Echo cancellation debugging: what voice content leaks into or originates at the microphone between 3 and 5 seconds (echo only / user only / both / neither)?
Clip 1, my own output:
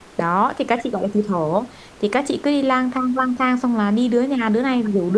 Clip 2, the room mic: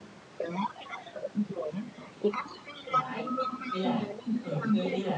both